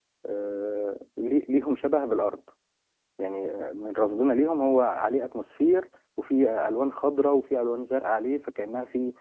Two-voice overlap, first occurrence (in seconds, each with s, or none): none